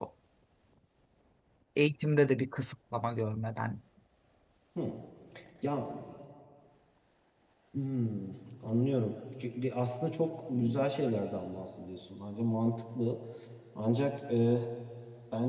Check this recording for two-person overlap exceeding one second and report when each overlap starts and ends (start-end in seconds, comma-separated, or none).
none